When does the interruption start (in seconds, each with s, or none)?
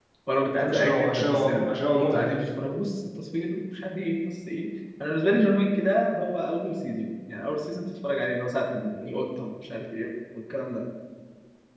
0.5 s